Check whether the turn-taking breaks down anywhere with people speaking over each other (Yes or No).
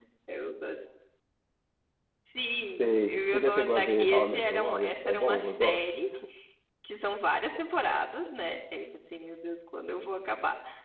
Yes